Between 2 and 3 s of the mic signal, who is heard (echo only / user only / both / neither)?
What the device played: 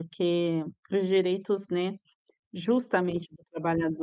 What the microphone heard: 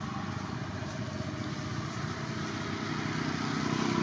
neither